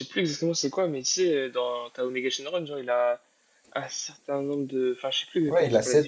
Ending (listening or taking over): taking over